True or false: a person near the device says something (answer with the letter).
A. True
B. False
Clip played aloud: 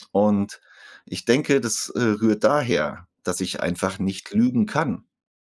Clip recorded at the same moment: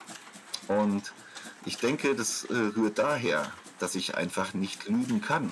B